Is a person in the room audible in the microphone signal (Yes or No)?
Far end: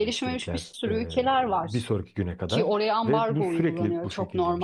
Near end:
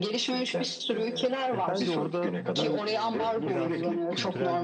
Yes